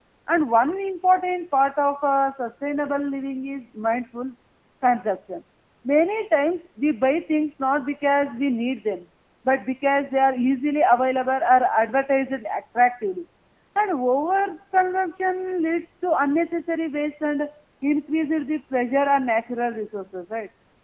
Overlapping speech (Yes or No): No